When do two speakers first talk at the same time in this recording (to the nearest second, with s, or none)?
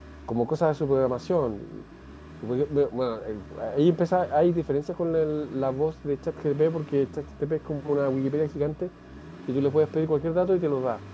none